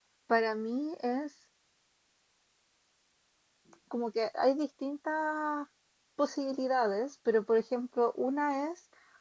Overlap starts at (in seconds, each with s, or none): none